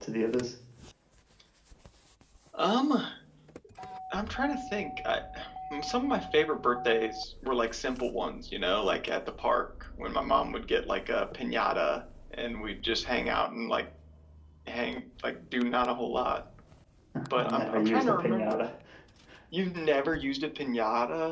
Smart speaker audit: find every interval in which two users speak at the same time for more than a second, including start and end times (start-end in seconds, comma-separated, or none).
17.4-18.7